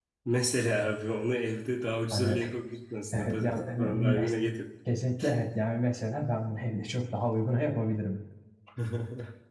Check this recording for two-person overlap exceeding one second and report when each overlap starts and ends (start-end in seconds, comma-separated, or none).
3.1-4.3